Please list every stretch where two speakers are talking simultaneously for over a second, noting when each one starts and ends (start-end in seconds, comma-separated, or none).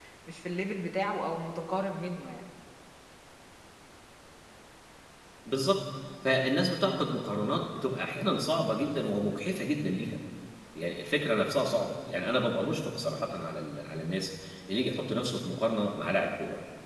none